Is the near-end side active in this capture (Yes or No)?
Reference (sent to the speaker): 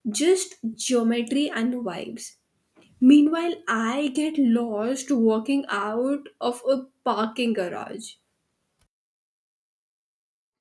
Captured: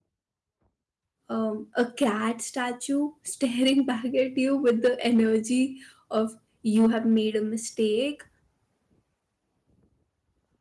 Yes